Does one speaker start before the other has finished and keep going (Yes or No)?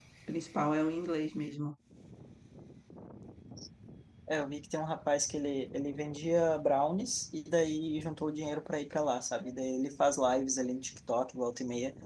No